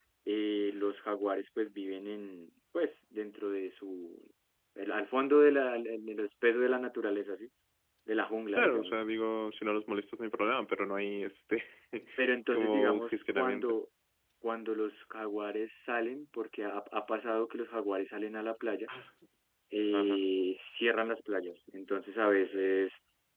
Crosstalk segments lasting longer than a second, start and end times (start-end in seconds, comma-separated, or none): 12.5-13.8